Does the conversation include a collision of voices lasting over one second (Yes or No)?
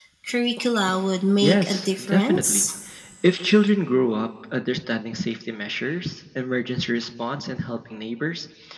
Yes